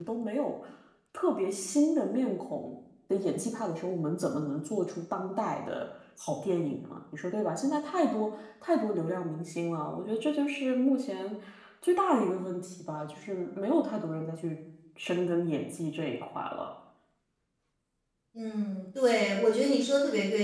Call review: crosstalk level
none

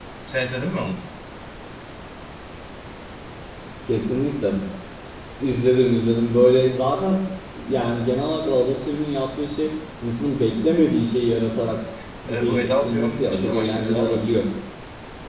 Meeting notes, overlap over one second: present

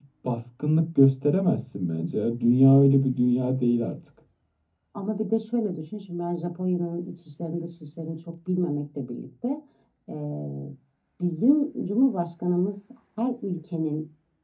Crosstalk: none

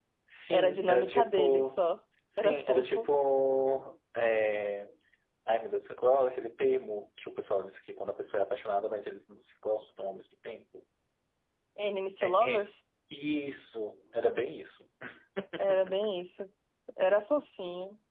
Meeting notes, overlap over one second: present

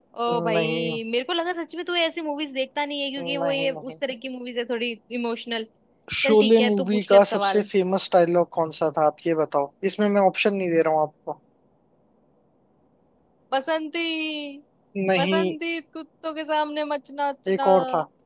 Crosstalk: present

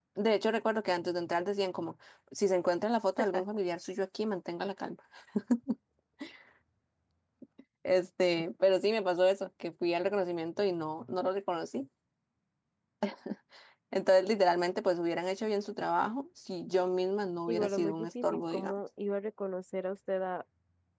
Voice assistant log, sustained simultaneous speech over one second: present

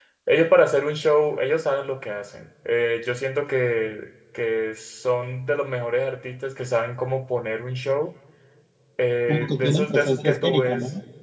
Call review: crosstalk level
present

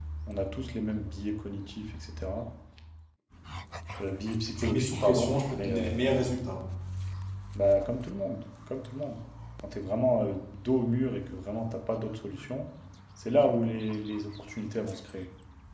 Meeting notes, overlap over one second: present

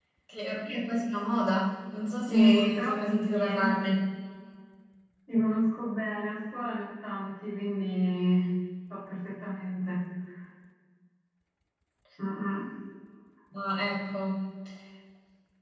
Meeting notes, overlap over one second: present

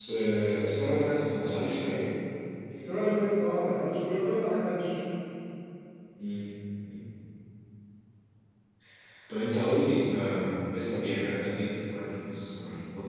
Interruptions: none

